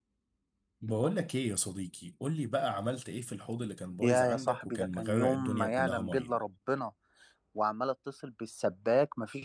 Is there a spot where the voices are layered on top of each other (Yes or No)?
Yes